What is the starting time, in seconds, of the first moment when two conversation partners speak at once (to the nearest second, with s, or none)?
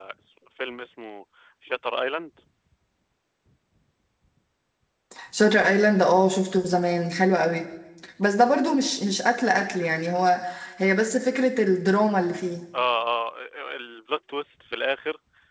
none